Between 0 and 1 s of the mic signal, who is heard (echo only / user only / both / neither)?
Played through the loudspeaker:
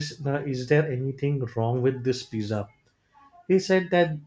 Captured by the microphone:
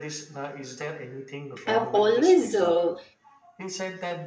echo only